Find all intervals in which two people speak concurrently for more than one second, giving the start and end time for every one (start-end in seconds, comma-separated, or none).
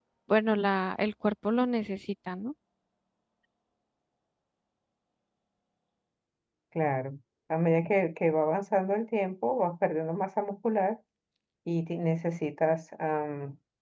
none